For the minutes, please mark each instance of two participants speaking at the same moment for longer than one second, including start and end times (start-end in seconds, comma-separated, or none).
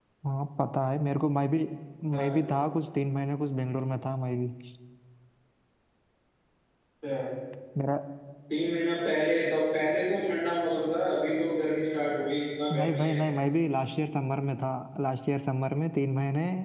none